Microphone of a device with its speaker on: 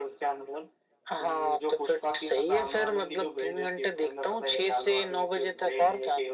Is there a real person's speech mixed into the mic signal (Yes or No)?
No